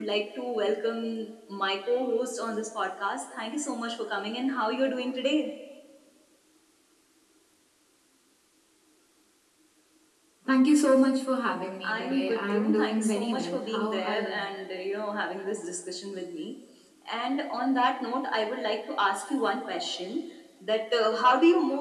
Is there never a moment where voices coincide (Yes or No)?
No